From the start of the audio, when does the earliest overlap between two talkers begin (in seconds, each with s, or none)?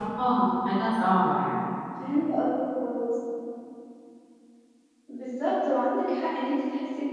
none